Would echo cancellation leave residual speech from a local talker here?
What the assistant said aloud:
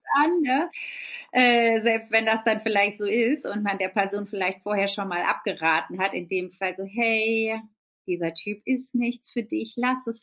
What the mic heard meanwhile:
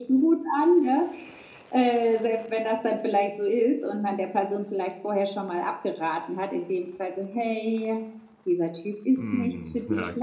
Yes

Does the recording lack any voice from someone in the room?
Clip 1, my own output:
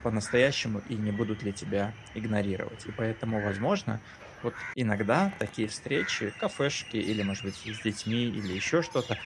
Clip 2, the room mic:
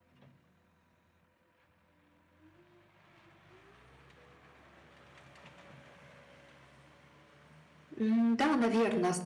No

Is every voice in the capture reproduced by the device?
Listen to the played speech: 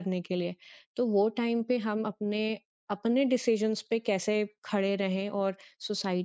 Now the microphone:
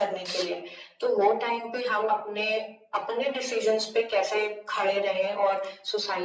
Yes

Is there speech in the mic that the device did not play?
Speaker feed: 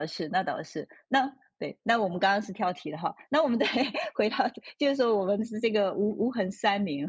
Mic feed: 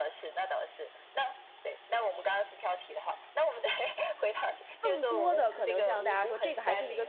Yes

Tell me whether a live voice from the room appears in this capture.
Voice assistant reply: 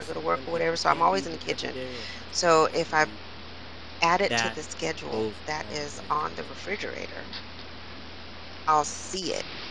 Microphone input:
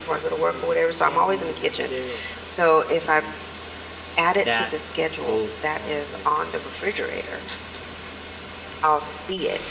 No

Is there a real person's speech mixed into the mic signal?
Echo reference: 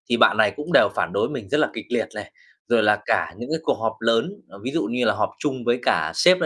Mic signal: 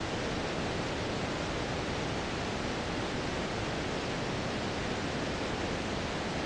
No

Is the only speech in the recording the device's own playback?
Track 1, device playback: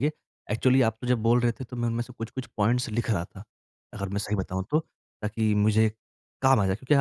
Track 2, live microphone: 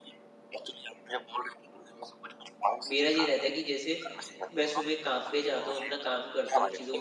No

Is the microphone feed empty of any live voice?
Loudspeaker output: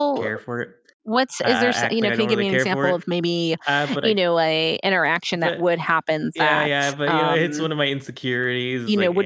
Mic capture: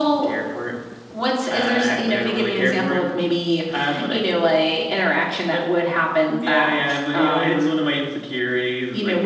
Yes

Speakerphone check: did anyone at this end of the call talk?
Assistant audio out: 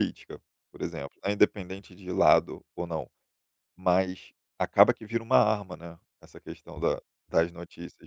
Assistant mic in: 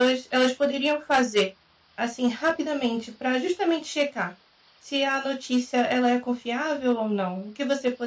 Yes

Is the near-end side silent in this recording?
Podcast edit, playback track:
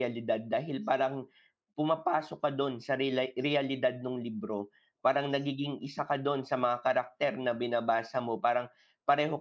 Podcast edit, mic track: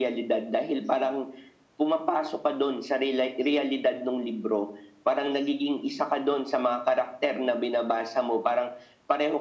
Yes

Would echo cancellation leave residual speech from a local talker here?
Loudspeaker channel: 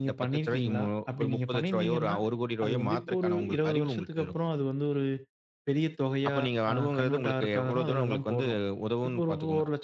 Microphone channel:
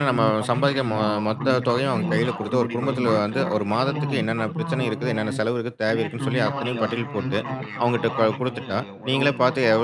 Yes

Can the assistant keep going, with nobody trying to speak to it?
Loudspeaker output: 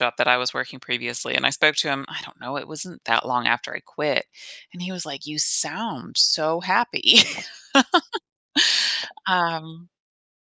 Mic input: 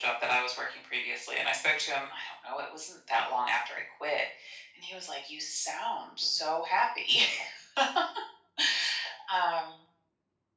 Yes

